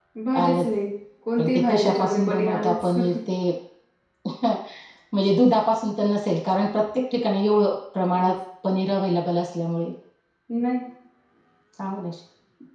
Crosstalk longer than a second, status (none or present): present